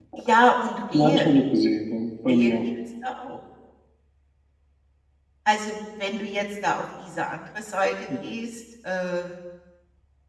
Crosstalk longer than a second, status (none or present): none